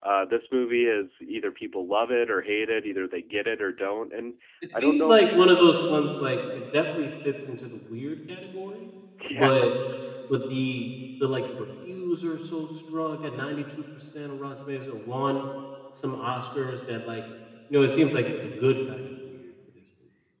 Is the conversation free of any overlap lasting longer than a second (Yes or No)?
Yes